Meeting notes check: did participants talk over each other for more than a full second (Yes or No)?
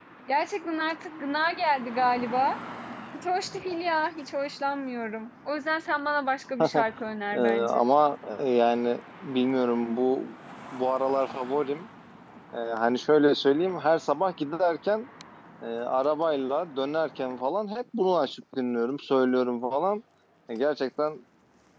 No